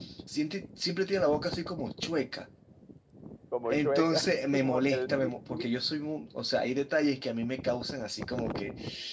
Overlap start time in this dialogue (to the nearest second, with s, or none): 4 s